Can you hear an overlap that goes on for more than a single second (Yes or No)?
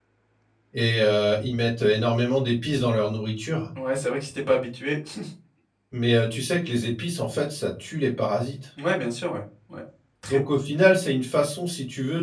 No